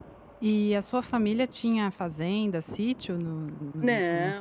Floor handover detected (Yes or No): Yes